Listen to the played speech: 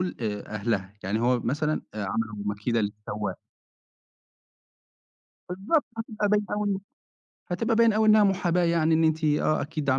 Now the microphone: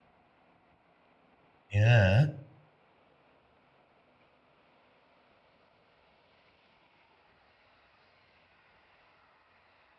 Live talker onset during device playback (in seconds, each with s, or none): 1.7 s